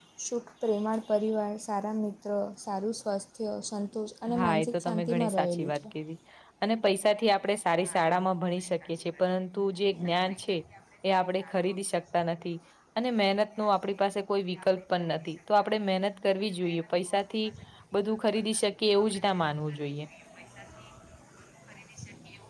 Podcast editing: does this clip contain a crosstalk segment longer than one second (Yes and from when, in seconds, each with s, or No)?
Yes, from 4.3 s